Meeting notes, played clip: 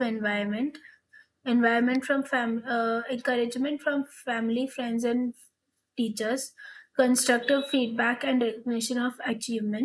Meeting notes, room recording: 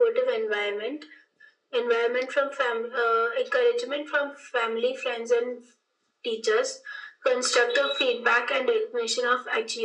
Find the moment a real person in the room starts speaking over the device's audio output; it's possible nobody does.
none

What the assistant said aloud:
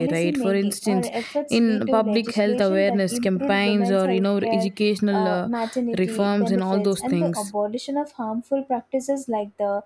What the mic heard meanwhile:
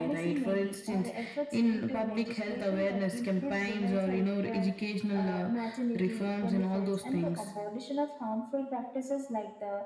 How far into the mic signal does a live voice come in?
none

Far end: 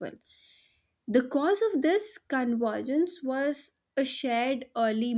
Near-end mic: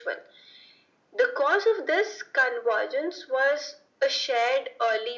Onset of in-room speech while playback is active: none

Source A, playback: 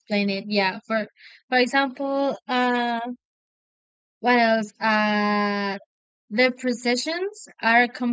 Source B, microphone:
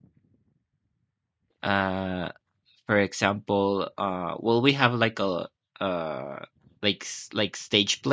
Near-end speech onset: 1.6 s

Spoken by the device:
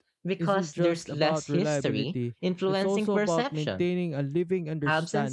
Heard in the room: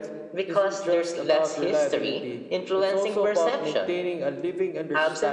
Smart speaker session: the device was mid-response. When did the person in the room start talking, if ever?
none

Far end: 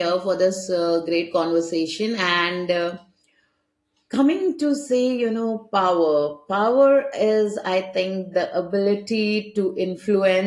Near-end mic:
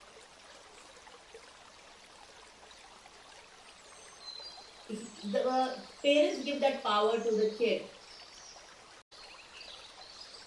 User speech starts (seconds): 4.9 s

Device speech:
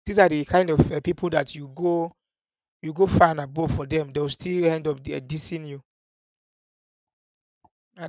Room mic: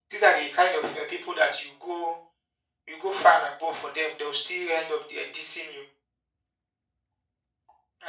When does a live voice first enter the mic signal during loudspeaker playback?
none

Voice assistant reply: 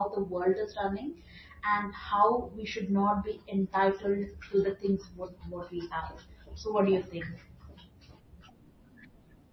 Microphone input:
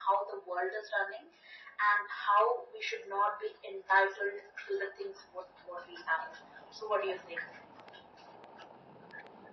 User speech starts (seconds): none

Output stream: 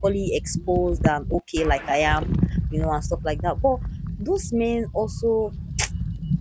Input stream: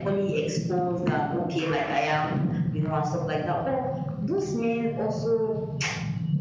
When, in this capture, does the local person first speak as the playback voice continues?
none

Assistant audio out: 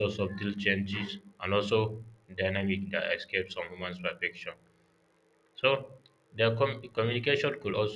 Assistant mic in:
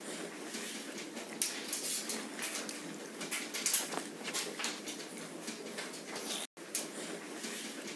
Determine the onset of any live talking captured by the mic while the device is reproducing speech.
none

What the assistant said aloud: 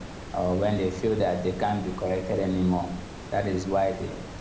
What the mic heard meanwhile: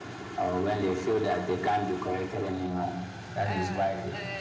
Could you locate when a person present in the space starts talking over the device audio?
3.5 s

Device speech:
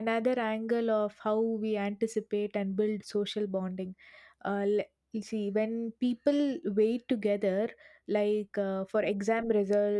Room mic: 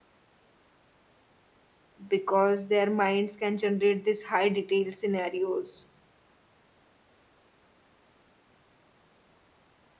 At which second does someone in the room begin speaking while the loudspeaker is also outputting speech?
2.1 s

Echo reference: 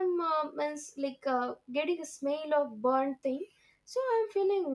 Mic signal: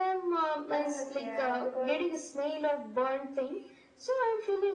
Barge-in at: 0.7 s

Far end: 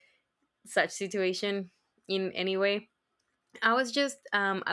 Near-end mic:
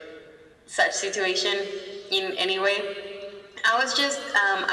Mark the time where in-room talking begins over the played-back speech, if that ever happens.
none

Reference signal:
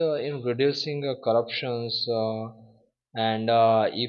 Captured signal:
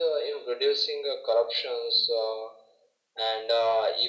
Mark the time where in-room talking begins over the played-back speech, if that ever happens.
none

